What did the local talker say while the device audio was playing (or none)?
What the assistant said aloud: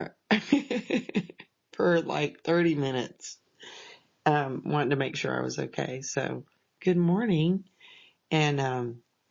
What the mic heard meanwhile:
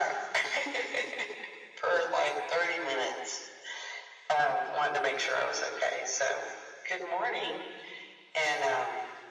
none